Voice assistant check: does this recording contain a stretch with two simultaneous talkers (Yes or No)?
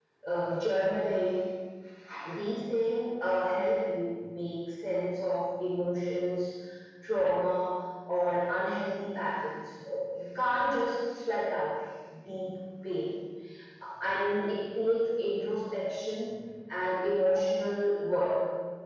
No